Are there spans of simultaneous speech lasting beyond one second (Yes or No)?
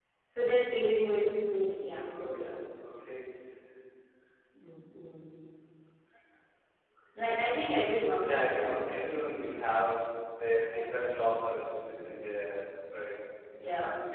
No